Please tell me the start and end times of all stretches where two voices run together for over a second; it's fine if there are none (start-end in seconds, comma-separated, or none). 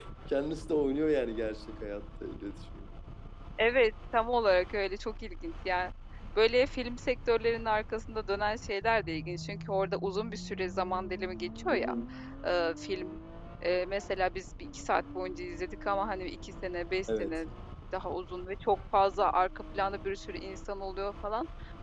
none